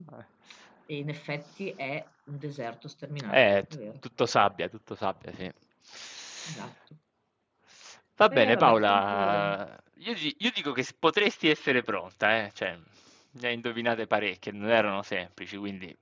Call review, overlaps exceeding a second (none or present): present